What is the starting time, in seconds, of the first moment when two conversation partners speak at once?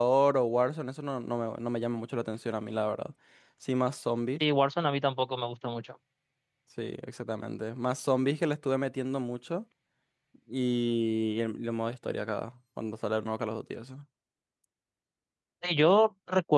none

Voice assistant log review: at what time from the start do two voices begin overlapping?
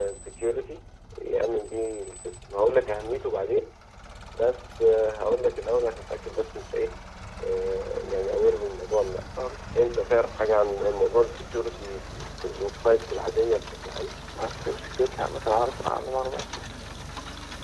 none

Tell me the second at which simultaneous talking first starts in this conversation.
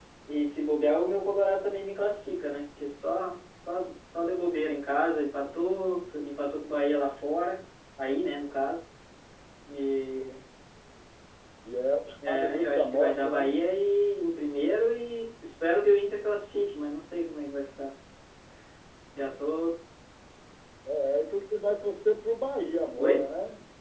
12.3 s

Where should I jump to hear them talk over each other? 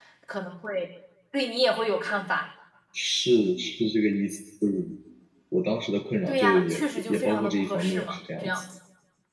6.3 s

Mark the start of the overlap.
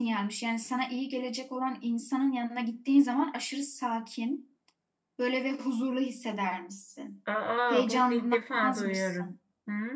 7.7 s

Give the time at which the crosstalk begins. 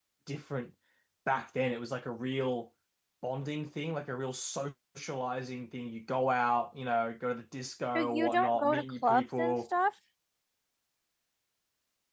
8.0 s

